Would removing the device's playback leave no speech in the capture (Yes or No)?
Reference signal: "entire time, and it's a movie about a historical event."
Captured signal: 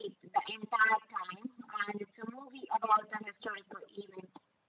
Yes